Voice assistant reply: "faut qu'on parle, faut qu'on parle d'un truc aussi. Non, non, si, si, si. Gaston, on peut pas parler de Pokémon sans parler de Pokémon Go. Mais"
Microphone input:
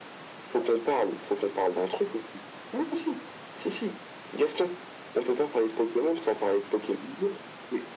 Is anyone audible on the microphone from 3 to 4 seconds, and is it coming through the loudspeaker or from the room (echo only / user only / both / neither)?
echo only